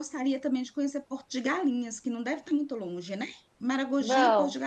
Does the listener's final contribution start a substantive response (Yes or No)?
No